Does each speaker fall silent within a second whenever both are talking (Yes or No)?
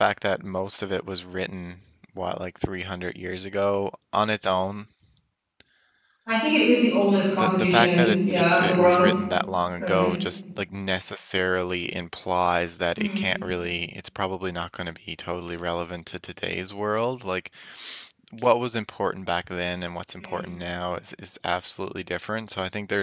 No